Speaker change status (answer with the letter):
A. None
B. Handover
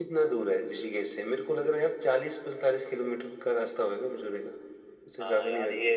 B